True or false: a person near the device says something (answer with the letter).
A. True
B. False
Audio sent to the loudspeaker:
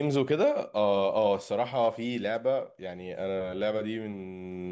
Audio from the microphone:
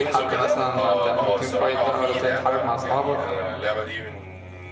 A